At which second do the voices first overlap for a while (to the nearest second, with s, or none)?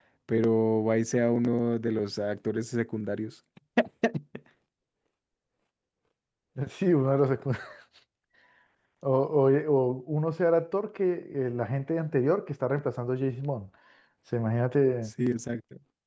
none